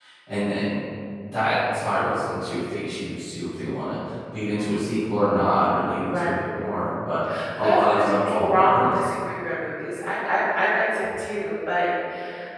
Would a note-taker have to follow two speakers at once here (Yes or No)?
Yes